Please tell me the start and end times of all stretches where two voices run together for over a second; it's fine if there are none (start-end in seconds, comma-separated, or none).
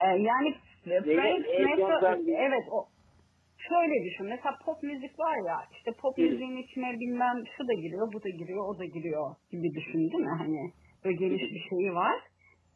1.0-2.4